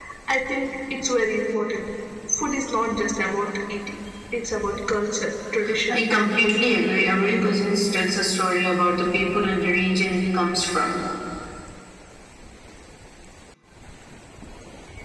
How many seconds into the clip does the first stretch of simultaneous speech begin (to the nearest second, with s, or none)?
6 s